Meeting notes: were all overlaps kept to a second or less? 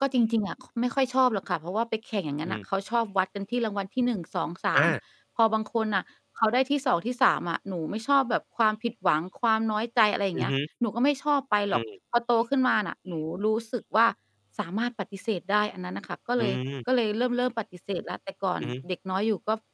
Yes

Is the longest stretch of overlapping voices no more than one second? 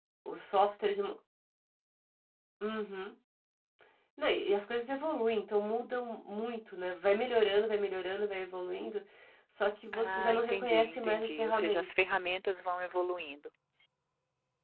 No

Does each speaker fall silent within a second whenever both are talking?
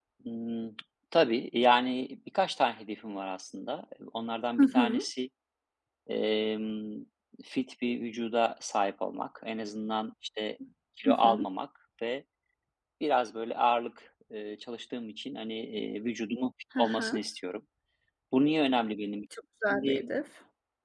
Yes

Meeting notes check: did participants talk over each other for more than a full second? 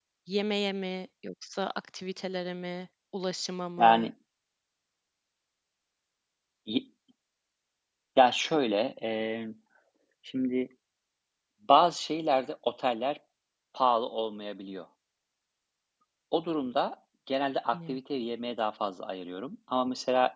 No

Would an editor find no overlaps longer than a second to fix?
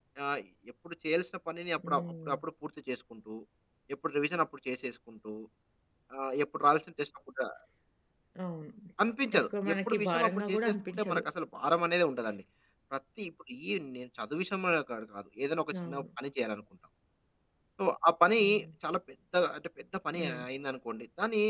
No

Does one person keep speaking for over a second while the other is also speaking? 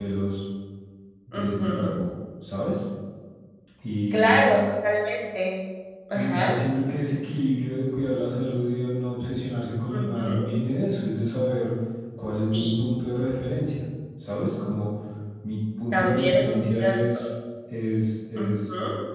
Yes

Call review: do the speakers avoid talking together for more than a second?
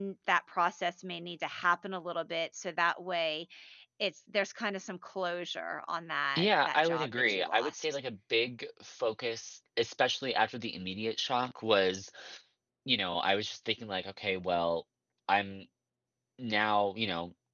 No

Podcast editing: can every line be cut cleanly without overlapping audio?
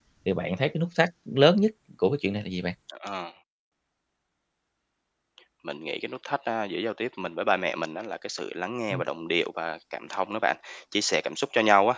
Yes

